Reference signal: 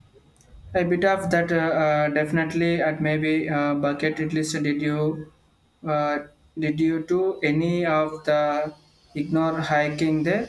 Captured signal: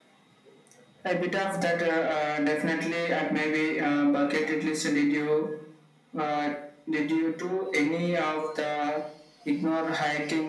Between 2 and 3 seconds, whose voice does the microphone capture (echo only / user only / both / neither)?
echo only